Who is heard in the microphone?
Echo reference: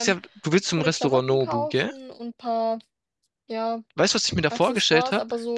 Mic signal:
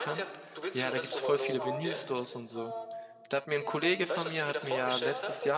both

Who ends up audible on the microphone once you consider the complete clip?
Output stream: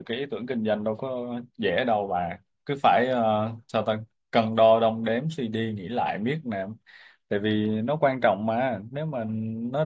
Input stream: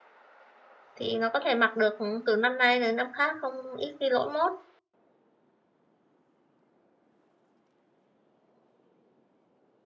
user only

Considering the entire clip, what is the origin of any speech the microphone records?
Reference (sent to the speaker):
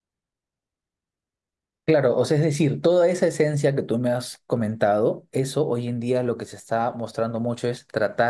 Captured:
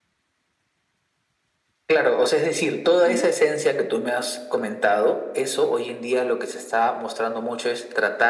both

